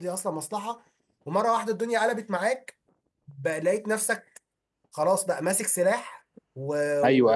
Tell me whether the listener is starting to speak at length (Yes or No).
Yes